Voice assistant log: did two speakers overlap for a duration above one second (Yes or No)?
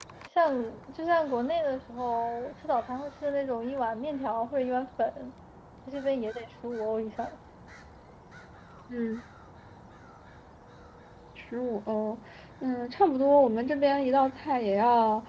No